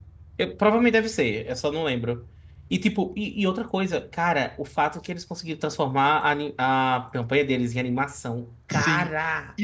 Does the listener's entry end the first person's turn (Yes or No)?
Yes